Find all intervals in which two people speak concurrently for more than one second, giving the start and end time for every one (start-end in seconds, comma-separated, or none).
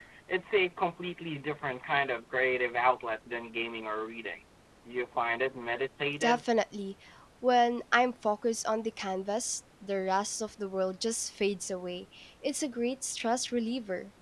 none